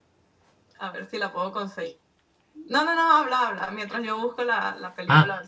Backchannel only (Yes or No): No